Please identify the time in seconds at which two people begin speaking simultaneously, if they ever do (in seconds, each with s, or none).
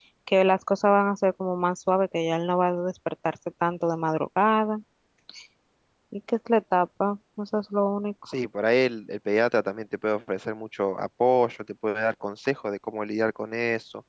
none